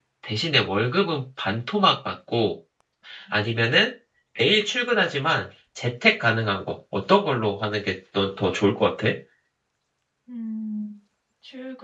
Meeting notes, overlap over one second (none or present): none